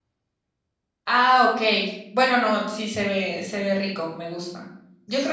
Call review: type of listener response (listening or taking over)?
listening